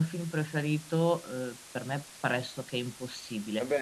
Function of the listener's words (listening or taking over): taking over